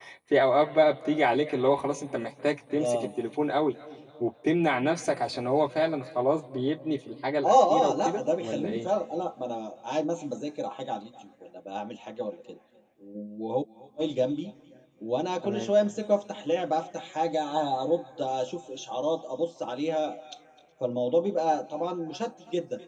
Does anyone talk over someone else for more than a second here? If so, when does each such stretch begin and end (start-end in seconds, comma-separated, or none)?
7.4-8.9